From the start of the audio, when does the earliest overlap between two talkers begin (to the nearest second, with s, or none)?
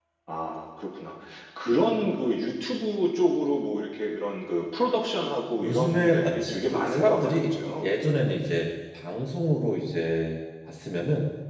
6 s